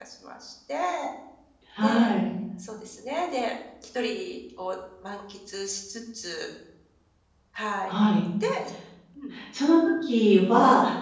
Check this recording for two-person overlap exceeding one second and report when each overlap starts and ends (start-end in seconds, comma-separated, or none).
none